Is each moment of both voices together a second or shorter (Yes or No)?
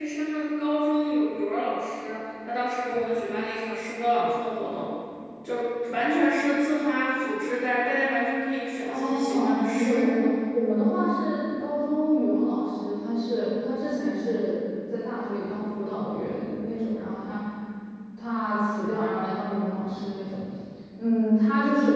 No